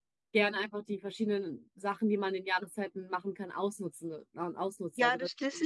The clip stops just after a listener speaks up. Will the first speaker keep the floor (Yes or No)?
No